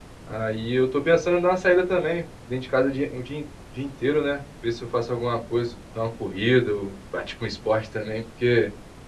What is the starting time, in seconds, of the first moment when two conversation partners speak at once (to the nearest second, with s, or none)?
none